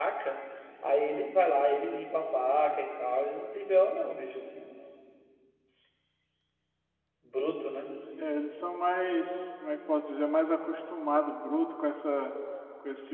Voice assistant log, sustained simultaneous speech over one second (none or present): none